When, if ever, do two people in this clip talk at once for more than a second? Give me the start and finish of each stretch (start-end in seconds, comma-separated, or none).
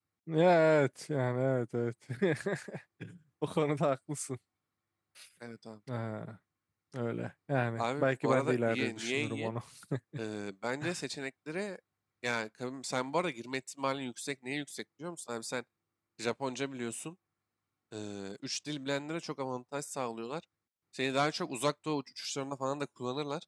7.8-9.5